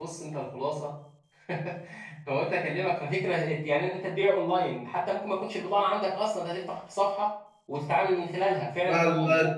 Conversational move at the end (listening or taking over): taking over